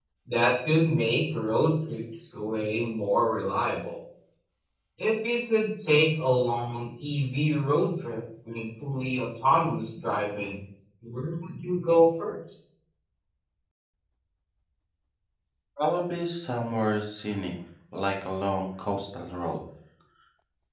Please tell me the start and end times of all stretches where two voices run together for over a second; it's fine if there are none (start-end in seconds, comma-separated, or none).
none